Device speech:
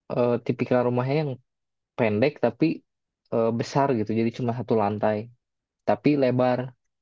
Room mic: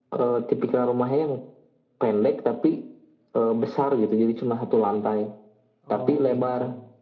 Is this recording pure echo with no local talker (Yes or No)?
No